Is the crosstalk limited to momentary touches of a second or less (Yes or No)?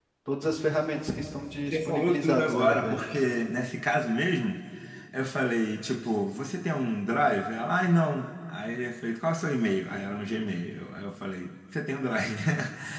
No